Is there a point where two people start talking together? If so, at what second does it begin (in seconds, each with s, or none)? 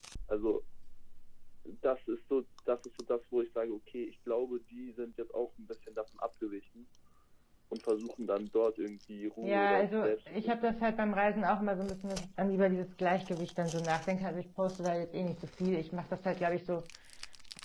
9.4 s